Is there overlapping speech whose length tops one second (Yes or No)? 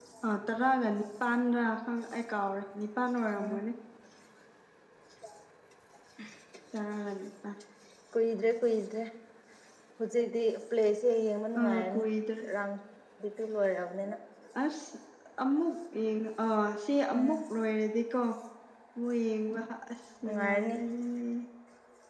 No